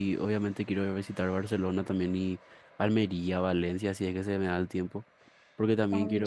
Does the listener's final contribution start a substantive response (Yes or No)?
No